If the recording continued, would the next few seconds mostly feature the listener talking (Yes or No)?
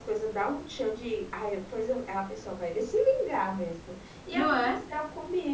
No